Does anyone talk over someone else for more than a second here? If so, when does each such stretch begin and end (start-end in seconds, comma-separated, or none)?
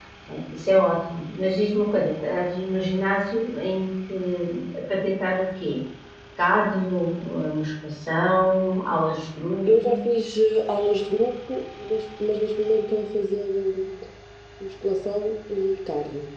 none